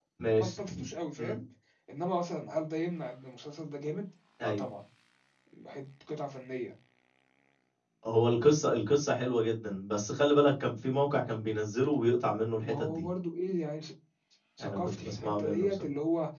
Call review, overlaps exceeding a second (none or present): present